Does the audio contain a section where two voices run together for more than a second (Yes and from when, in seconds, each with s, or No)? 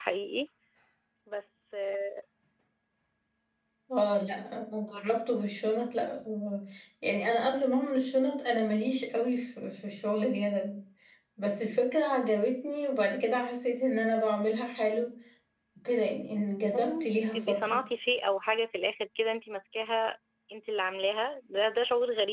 Yes, from 16.6 s